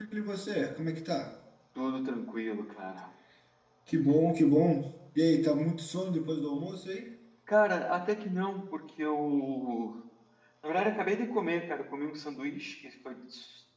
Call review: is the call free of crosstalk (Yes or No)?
Yes